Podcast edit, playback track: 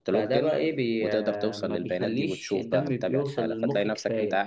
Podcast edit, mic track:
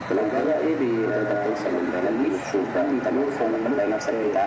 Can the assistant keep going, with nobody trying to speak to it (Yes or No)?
Yes